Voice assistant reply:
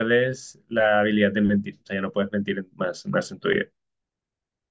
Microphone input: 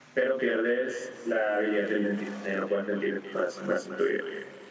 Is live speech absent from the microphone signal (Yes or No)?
Yes